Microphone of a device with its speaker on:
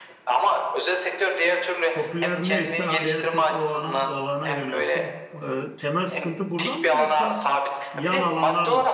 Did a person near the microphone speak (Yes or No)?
Yes